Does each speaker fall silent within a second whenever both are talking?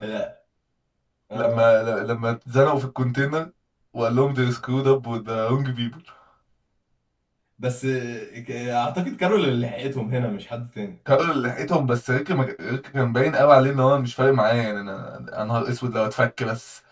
Yes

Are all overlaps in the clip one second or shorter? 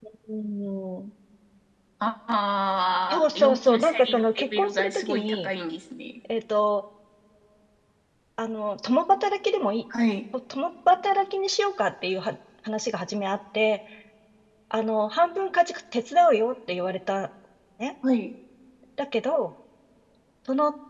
No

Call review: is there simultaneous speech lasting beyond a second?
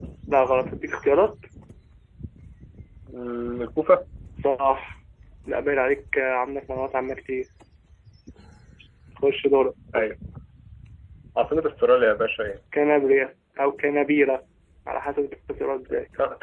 No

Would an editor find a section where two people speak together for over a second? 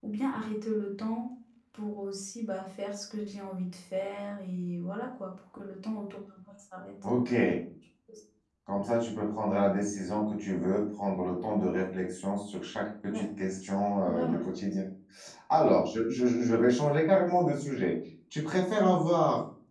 No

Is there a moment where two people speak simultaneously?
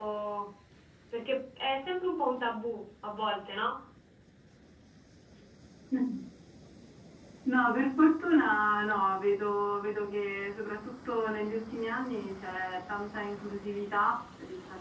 No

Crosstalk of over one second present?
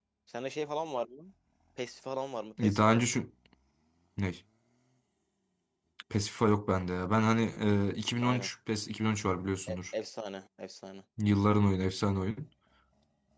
No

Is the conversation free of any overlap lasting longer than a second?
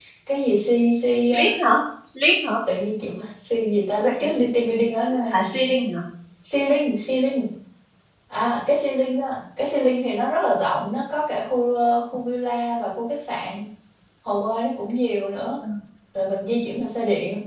Yes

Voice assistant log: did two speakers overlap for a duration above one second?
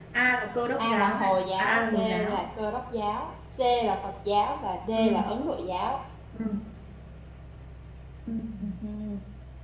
Yes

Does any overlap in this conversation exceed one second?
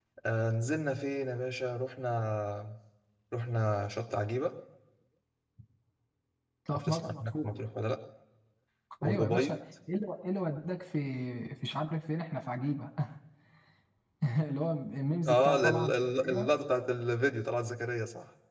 Yes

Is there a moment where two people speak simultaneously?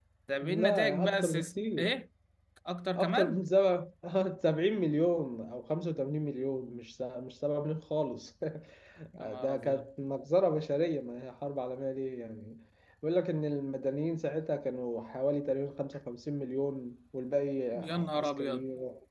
Yes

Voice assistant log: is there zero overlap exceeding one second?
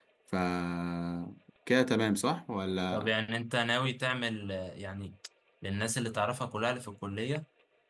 Yes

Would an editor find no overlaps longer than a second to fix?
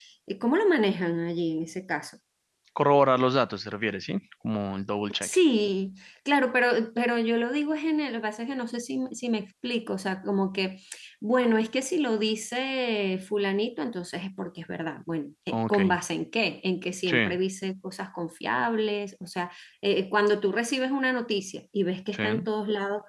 Yes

